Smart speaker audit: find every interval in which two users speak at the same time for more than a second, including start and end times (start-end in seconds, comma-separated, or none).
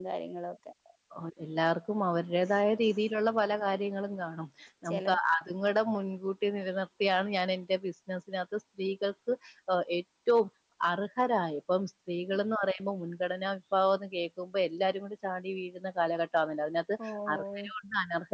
none